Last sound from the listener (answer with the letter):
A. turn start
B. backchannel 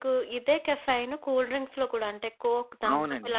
B